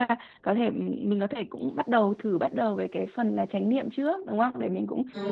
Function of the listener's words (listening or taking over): listening